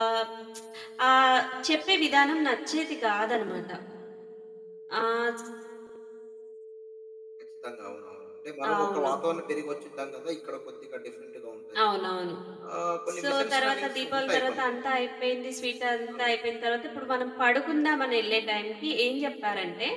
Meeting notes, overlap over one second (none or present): present